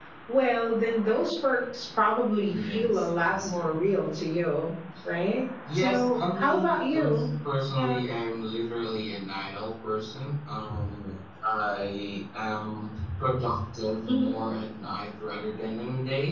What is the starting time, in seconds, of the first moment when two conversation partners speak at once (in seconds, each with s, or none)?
2.5 s